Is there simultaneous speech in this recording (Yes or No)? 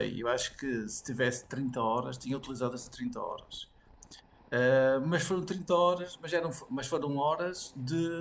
No